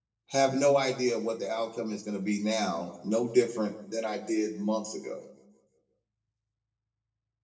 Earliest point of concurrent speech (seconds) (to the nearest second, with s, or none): none